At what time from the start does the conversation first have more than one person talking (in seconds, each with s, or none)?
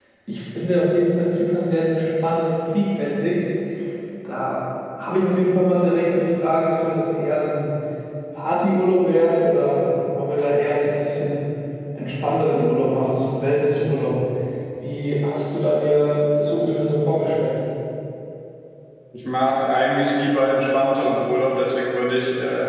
none